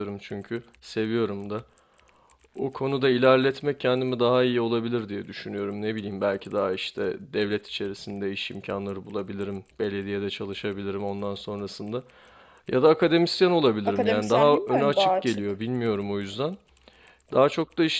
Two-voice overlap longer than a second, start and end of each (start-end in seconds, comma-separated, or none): 13.8-15.4